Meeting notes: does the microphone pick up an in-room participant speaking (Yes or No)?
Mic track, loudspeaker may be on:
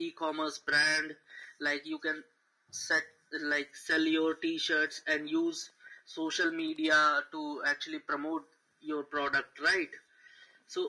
No